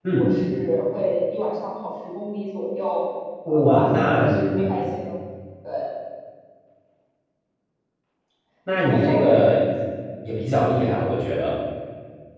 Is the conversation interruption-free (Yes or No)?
No